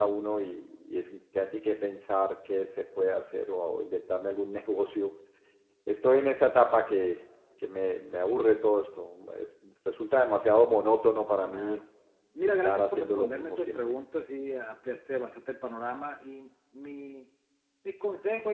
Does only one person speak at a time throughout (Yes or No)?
No